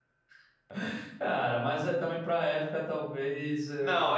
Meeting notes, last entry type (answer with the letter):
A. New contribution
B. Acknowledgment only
A